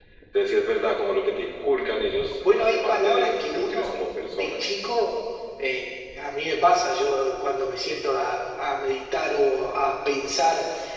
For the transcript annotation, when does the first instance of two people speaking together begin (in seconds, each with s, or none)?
2.4 s